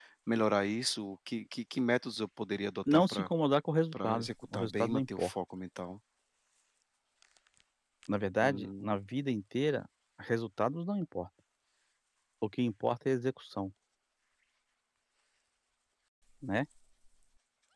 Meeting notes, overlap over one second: present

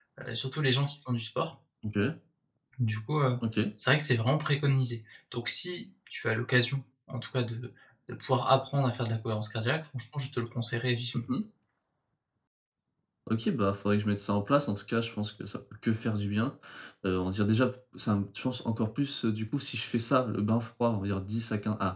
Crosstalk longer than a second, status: none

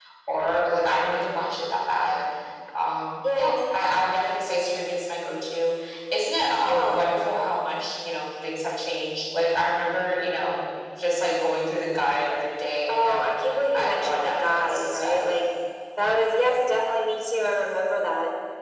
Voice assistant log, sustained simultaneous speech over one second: present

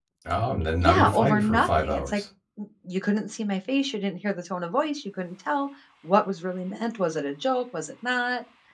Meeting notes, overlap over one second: present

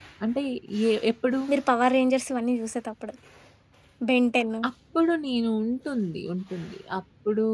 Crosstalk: none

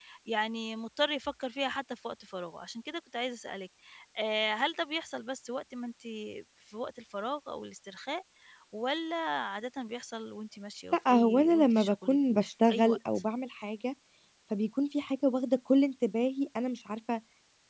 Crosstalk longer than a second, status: present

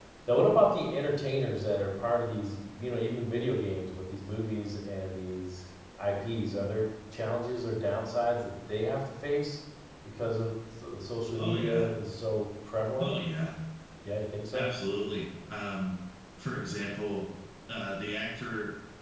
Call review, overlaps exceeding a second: none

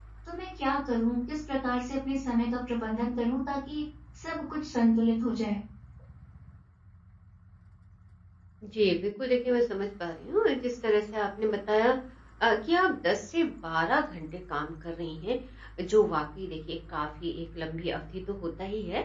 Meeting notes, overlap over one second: none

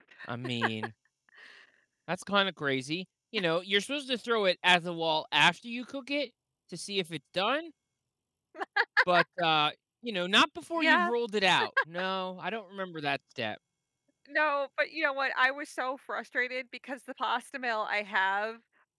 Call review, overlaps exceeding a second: none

